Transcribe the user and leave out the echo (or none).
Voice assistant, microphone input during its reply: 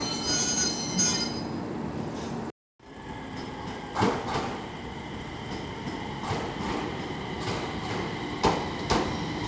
none